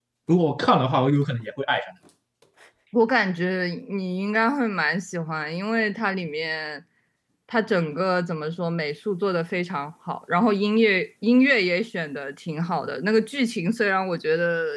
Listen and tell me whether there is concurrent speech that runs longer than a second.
No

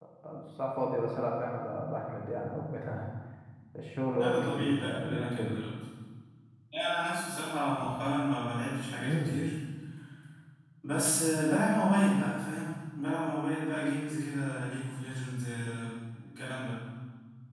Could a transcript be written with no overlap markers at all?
No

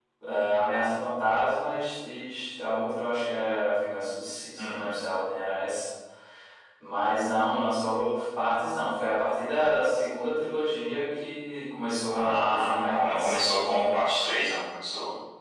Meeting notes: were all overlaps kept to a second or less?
No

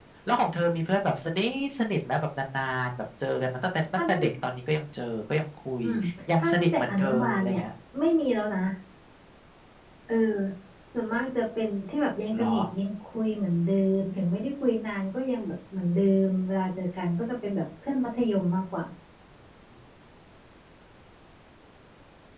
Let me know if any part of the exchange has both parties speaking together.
Yes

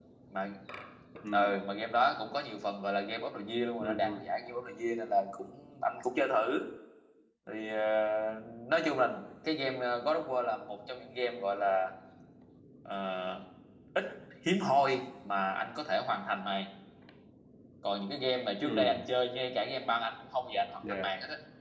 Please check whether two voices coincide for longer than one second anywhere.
No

